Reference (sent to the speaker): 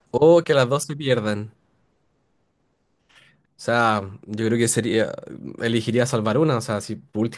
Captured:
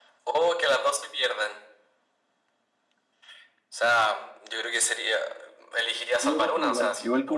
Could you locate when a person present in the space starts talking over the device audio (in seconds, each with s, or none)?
6.2 s